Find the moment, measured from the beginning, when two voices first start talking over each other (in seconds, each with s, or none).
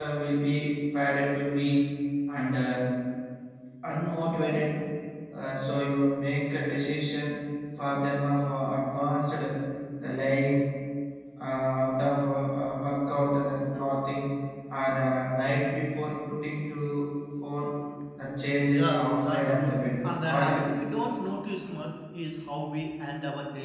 18.7 s